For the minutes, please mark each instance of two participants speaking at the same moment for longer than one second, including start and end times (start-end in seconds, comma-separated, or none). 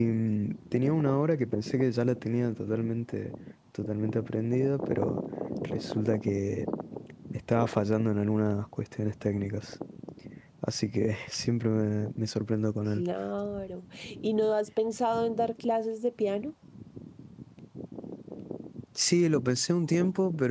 none